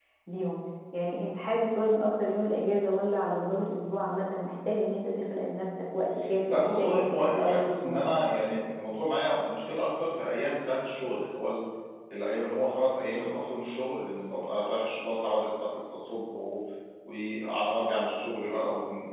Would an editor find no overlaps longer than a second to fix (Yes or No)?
No